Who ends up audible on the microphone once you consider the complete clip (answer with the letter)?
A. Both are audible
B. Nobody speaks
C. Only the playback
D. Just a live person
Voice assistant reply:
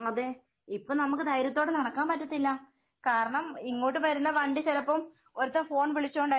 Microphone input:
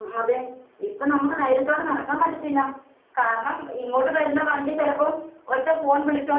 C